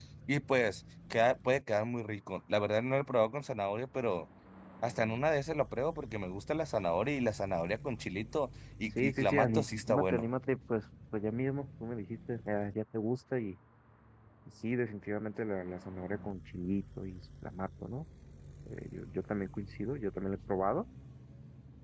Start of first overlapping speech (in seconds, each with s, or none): 9.0 s